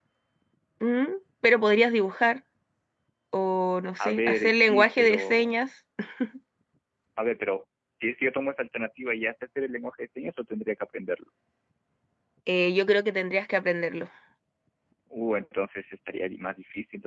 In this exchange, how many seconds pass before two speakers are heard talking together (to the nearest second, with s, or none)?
4 s